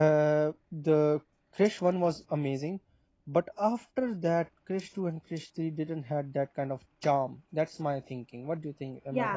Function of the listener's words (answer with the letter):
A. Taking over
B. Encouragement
A